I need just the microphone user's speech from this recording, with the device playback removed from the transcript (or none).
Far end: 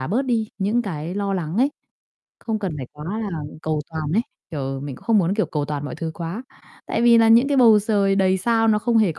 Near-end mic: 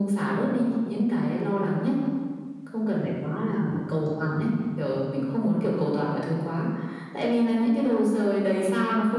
none